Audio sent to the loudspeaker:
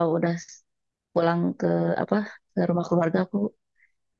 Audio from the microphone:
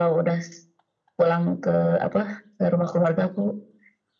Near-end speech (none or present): none